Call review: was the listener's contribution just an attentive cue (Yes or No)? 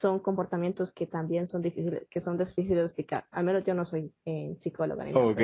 No